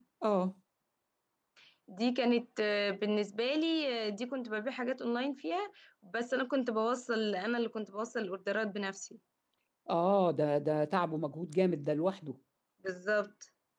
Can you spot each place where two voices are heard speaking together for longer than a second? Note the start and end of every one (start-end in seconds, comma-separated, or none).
none